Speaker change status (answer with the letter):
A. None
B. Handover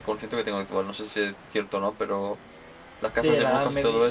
B